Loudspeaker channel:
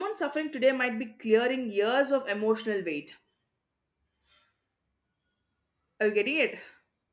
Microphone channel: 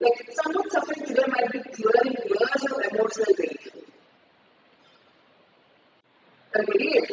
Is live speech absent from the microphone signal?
Yes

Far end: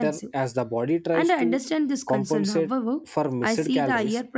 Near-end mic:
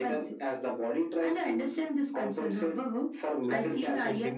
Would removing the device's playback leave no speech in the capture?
No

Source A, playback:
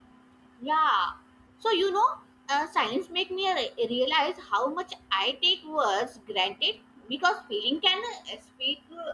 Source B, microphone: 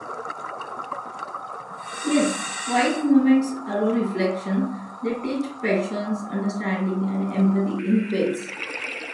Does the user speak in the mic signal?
Yes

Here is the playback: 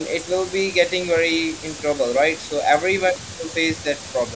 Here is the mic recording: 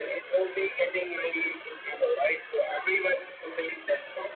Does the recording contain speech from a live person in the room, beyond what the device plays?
No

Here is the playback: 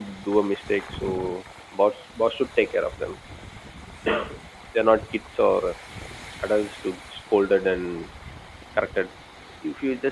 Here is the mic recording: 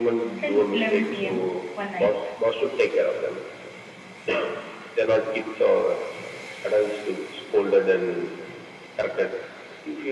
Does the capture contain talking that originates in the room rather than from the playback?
Yes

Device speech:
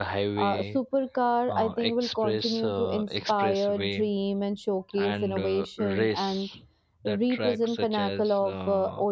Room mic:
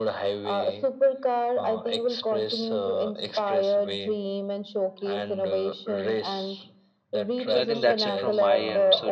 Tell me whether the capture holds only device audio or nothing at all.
No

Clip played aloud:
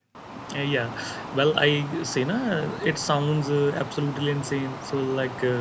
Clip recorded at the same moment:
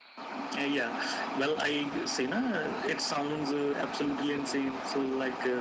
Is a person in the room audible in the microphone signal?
No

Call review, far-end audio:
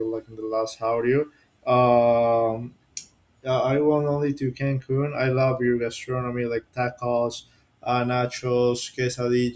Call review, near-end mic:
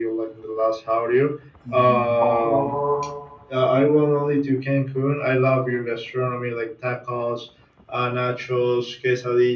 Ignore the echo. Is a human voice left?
Yes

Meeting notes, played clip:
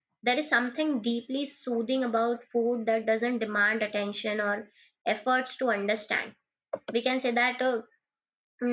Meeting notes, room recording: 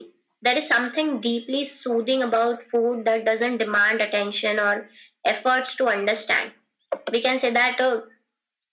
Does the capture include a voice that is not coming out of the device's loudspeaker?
No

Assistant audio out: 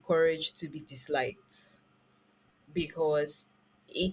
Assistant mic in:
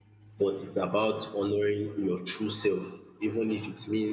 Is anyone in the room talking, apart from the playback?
Yes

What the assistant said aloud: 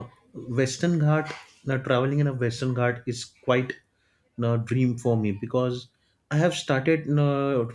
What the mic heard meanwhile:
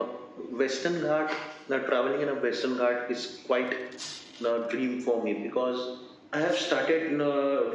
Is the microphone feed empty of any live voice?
Yes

